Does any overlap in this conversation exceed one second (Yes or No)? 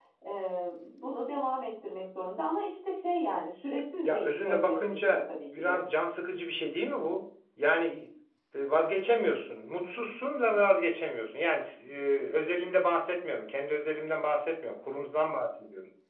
Yes